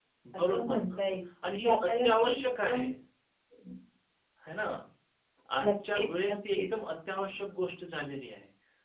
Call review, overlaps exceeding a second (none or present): present